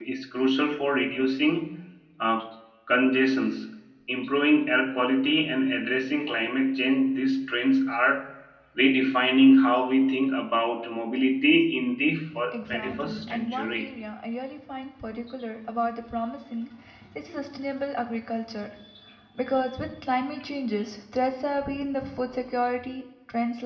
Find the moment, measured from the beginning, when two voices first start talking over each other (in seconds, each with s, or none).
12.5 s